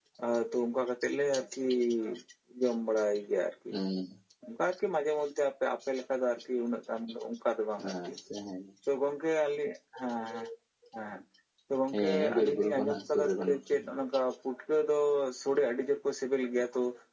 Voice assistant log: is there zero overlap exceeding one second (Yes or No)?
No